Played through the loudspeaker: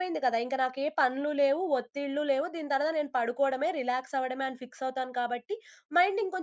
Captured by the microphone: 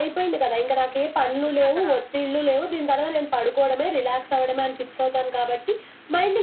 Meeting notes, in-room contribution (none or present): present